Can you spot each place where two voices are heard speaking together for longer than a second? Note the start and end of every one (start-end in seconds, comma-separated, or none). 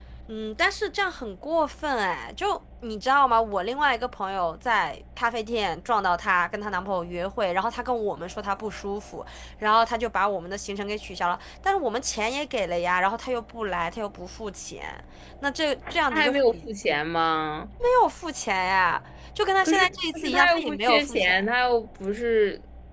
19.6-21.4